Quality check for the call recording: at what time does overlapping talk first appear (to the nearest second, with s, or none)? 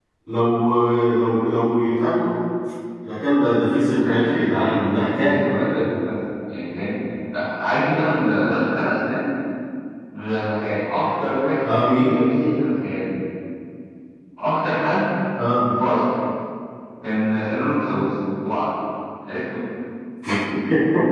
4 s